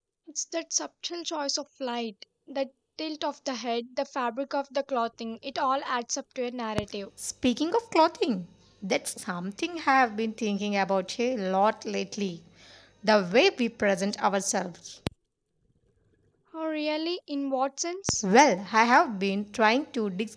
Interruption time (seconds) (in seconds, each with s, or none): none